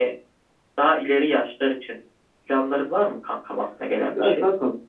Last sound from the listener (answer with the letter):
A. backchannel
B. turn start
B